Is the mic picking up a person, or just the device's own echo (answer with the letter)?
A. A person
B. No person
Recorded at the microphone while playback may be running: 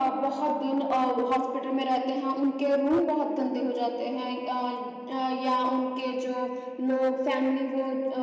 B